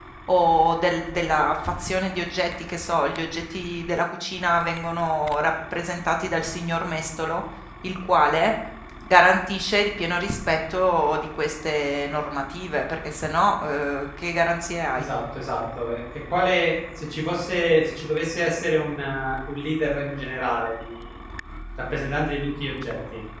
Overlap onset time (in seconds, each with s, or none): none